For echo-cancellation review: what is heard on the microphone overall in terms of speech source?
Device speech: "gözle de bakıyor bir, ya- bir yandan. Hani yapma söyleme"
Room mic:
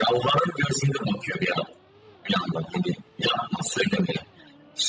echo only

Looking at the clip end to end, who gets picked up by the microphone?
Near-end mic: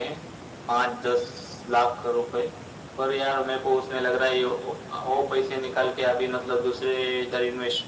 echo only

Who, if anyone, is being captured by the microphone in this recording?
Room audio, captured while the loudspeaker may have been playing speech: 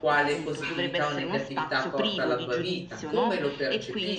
both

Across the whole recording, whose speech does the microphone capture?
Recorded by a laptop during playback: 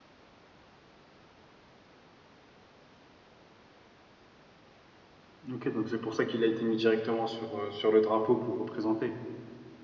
user only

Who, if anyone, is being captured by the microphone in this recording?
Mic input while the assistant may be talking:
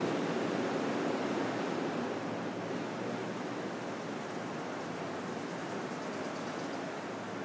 neither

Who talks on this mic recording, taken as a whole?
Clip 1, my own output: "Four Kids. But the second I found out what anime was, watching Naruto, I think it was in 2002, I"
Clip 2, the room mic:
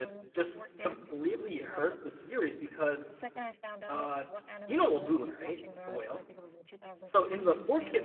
both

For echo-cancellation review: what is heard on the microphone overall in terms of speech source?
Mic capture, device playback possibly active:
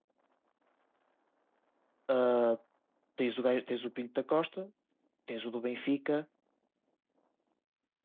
user only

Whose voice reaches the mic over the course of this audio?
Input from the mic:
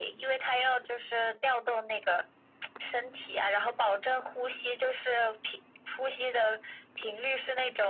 echo only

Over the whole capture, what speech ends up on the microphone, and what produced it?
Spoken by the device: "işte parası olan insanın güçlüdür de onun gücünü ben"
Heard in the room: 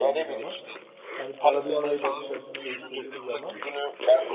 both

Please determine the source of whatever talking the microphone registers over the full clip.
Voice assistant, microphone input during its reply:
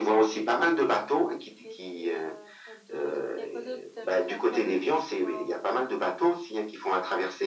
both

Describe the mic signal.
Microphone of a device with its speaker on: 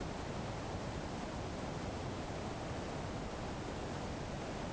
neither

